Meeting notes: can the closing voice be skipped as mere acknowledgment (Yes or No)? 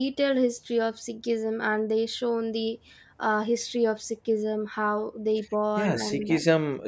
No